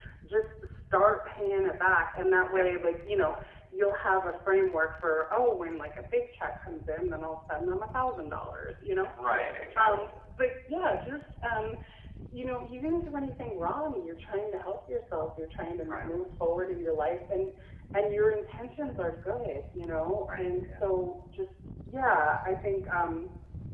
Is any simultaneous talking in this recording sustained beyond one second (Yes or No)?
No